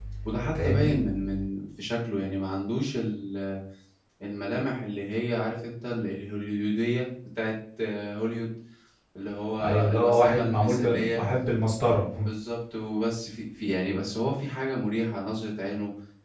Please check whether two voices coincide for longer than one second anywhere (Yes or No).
Yes